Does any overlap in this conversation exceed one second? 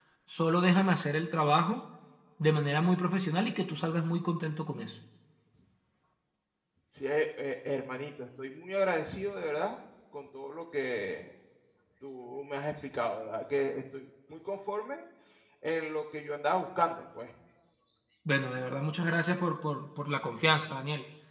No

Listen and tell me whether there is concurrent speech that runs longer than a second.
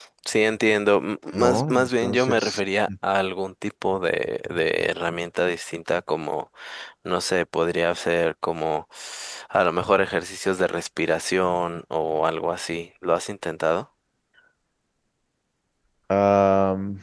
Yes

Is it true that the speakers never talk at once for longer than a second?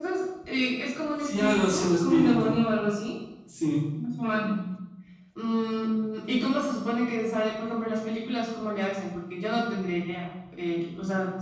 No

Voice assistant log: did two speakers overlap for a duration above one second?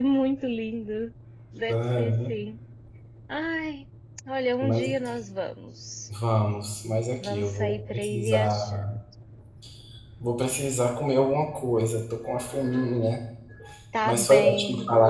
Yes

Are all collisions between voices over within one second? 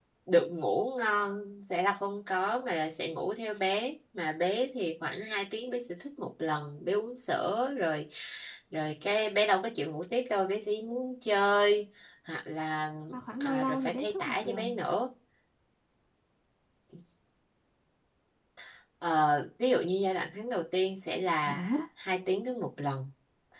No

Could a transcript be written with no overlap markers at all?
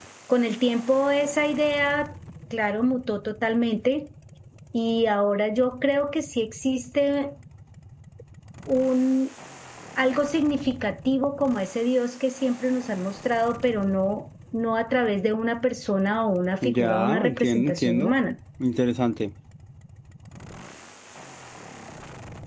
No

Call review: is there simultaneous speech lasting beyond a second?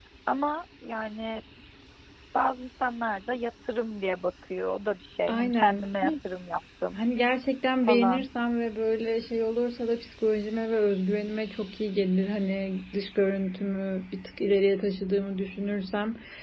No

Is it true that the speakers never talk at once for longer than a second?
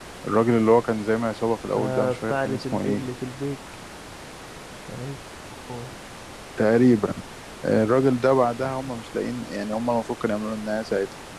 No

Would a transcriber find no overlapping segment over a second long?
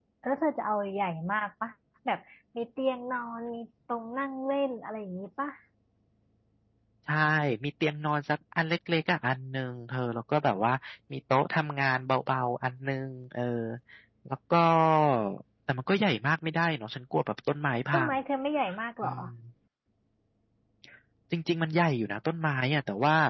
Yes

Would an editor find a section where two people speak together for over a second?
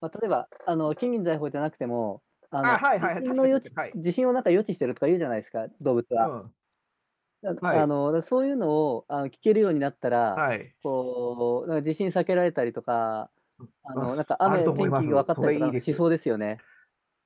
Yes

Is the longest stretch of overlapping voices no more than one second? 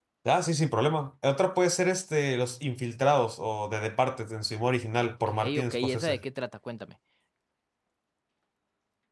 No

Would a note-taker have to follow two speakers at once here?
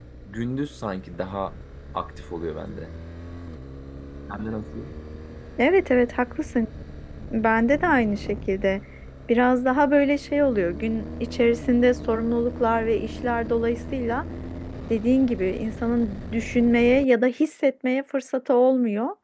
No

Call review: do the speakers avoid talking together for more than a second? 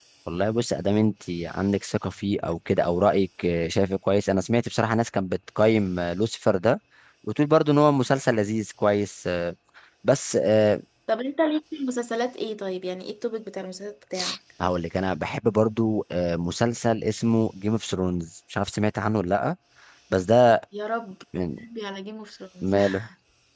Yes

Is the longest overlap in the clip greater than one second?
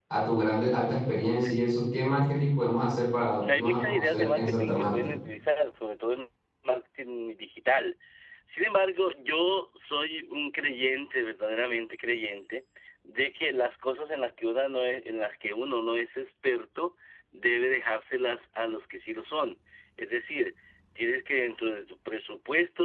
Yes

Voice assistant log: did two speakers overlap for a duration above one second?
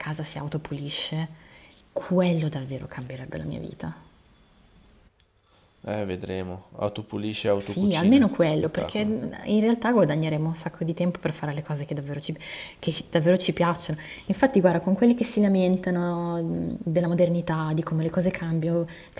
Yes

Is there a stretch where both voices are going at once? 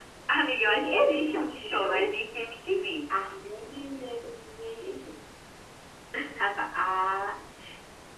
Yes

